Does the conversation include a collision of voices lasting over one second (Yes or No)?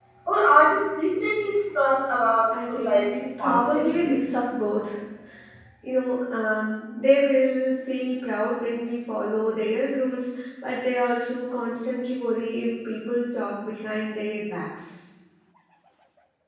Yes